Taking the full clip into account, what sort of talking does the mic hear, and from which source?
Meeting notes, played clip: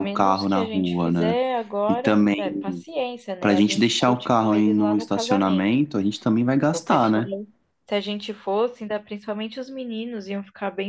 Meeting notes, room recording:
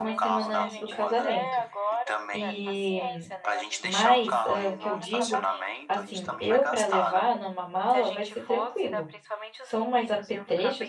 both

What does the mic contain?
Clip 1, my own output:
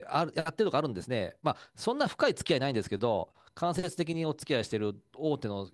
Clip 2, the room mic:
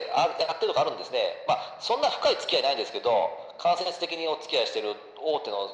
echo only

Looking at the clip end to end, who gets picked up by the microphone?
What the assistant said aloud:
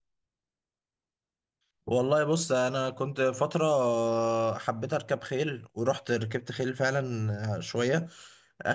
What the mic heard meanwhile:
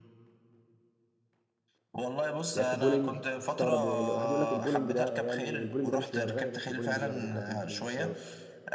both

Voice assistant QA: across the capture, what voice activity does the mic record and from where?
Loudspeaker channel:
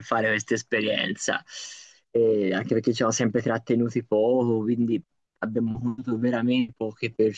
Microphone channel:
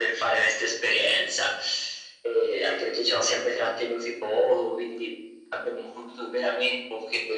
echo only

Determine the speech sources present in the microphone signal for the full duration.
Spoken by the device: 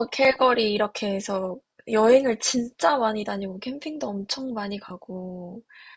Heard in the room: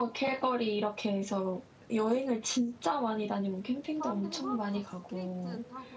both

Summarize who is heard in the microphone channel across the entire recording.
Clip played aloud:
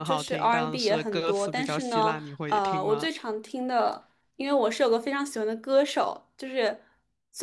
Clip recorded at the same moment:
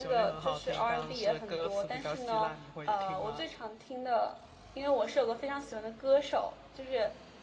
echo only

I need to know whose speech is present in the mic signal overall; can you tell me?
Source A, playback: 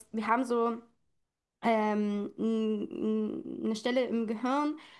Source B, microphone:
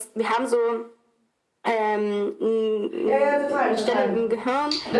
both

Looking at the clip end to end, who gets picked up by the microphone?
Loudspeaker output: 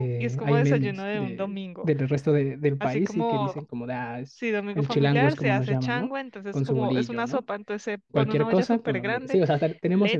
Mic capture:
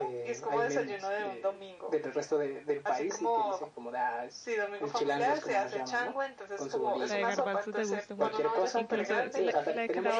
both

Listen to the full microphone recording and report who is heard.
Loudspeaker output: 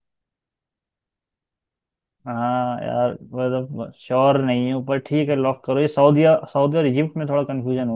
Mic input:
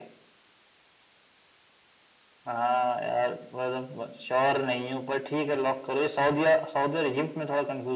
echo only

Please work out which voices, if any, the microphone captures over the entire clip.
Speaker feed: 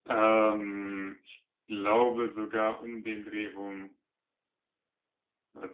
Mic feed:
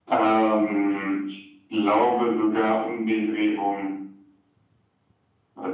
echo only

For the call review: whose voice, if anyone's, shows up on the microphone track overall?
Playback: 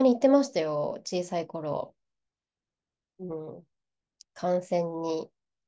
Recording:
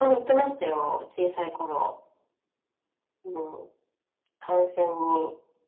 echo only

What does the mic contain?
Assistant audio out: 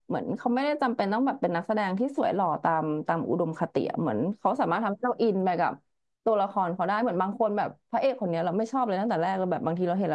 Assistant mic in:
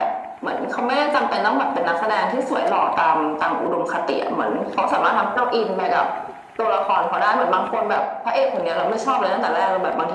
echo only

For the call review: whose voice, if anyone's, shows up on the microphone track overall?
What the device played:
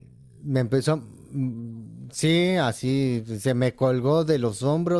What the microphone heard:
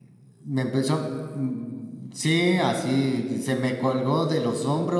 echo only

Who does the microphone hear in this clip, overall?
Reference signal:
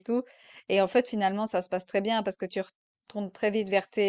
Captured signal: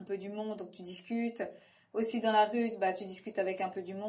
user only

